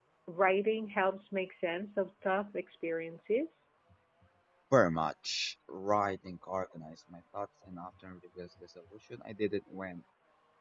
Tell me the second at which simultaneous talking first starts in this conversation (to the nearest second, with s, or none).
none